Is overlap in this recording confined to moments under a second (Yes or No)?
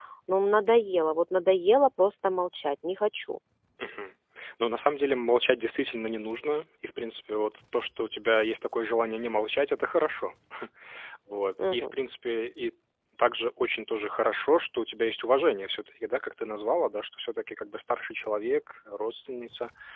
Yes